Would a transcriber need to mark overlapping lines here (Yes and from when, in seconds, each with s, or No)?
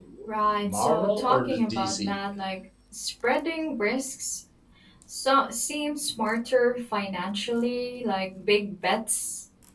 Yes, from 0.6 s